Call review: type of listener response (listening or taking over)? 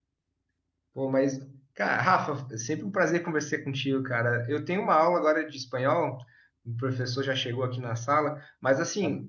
listening